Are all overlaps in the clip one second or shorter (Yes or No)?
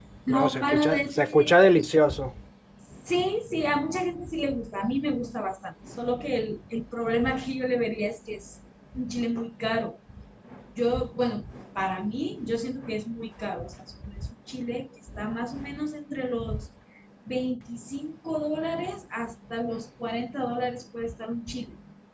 No